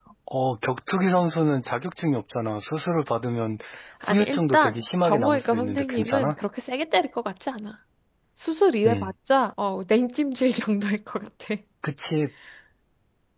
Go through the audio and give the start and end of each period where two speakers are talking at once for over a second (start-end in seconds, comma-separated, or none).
4.0-6.4